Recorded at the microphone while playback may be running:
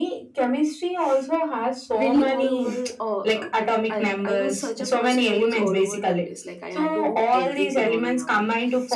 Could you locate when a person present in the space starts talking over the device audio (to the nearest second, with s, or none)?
2 s